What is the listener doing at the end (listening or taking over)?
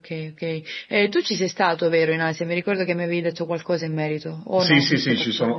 taking over